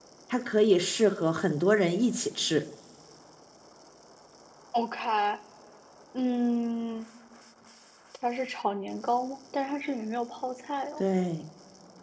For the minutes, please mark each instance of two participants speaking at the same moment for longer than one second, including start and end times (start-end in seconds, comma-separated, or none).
none